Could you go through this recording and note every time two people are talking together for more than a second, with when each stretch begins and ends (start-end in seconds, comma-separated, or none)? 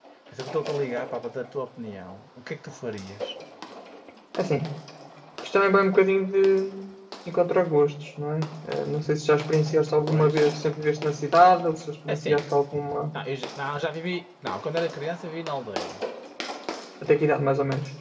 none